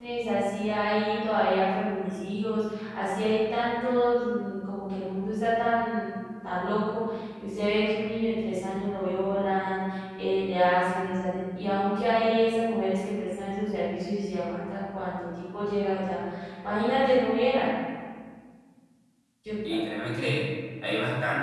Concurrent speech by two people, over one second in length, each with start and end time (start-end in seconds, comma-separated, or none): none